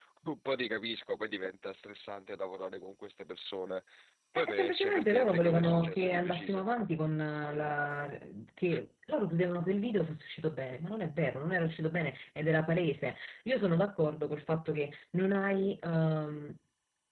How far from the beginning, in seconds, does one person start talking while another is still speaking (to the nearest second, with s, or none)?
4 s